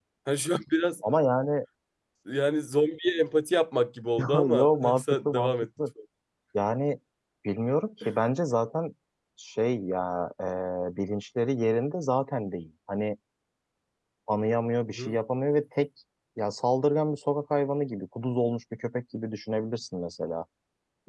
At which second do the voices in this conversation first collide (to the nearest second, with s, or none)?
4 s